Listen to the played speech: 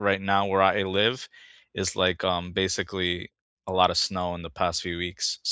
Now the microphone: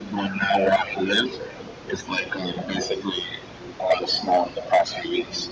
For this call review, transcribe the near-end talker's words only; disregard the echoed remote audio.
none

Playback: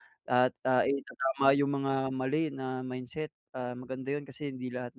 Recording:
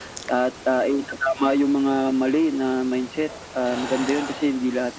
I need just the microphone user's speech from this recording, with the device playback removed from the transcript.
none

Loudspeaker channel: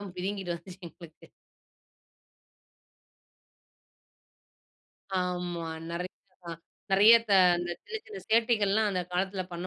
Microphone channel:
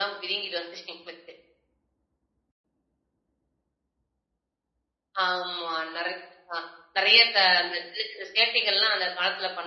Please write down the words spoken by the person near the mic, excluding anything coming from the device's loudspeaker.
none

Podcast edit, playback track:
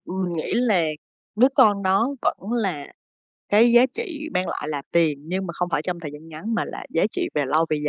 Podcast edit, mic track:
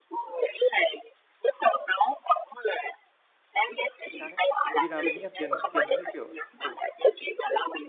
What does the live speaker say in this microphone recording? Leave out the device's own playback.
Chính xác đấy. Bởi vì là mình nghĩ là tiền tiền nó như, kiểu ừ.

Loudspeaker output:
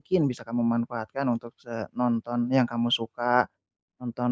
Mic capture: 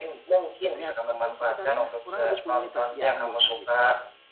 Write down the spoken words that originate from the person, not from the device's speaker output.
biasanya atur waktu sekitar, ya kurang lebih 10 menitlah, dia akan bosan, gitu.

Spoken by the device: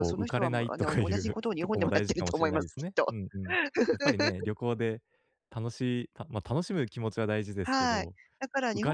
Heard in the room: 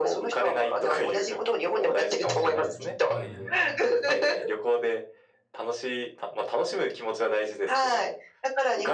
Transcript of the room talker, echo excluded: うん。はい。

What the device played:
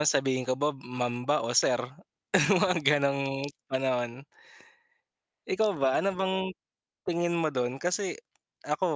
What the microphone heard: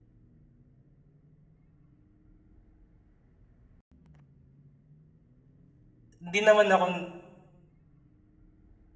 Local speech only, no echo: 'di naman ako

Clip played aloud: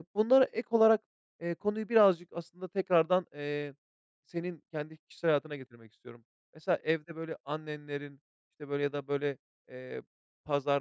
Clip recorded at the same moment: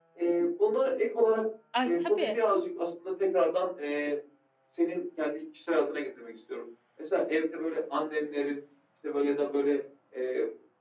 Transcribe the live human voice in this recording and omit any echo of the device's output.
Ay, tabii.

